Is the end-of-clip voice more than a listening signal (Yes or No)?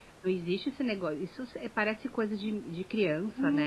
Yes